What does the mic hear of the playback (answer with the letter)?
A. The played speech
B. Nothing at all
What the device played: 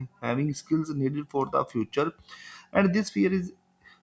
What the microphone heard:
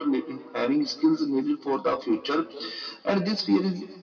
A